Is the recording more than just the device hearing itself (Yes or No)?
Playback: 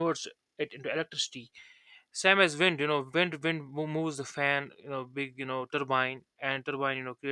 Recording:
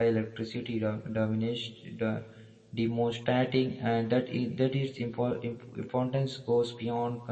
Yes